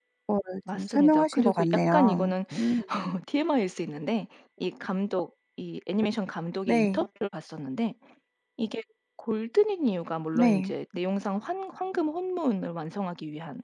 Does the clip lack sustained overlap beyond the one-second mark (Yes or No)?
No